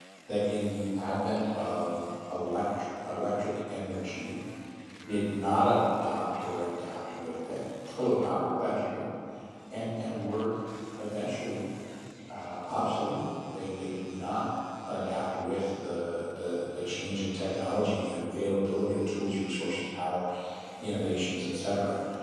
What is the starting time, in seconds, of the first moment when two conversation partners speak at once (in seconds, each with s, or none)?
none